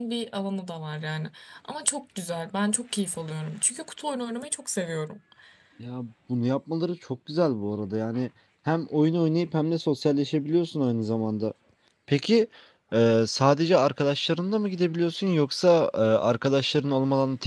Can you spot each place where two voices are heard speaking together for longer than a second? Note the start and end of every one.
none

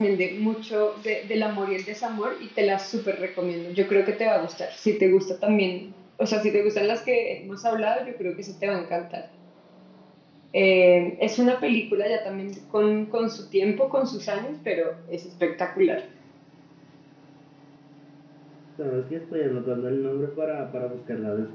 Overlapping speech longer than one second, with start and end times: none

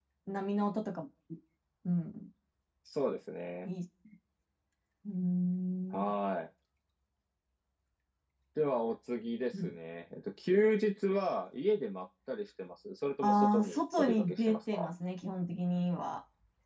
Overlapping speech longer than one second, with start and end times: 13.2-14.9

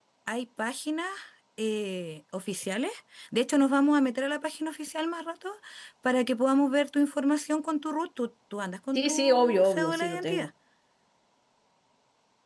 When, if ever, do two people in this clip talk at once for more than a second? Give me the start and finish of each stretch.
9.0-10.5

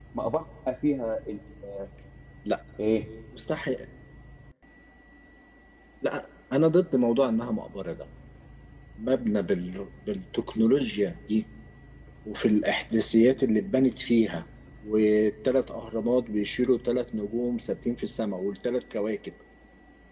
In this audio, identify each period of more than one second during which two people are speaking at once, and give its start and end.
none

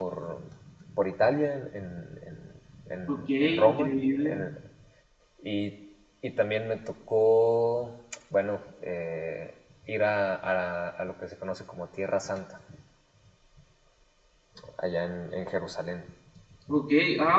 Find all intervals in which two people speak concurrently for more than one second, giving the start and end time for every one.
3.1-4.4

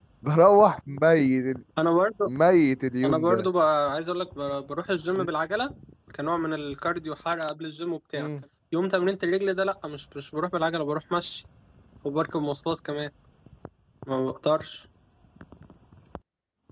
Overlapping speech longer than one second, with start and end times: none

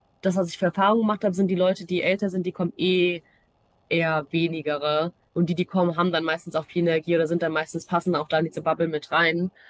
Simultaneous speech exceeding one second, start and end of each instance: none

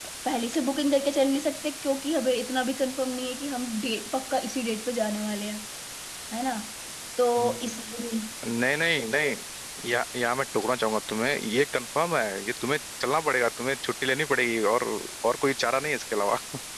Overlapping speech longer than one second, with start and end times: none

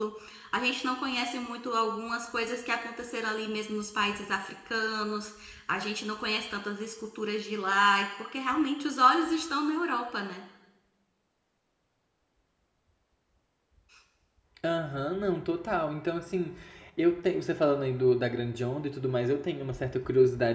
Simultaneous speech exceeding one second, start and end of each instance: none

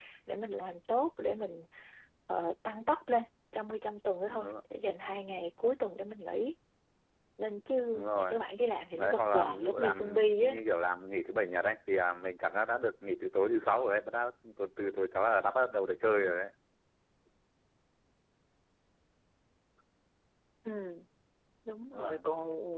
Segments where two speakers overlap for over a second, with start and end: 9.0-10.6

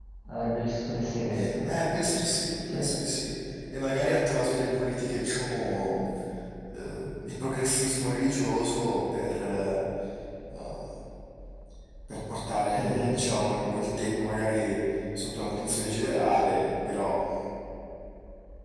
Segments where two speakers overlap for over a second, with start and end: none

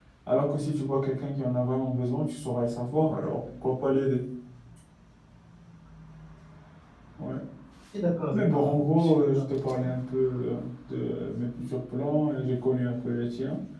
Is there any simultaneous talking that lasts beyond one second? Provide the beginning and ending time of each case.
8.3-9.8

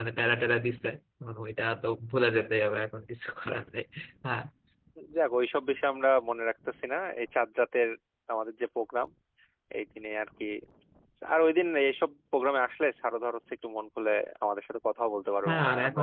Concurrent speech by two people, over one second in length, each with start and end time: none

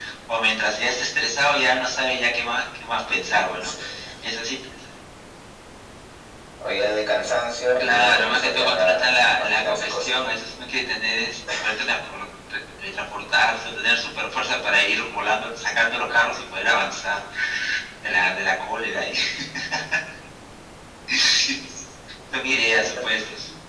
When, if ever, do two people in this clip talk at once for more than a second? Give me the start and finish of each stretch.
7.8-10.3

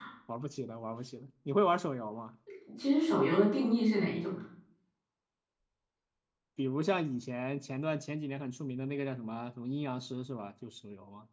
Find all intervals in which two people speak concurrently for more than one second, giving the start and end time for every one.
none

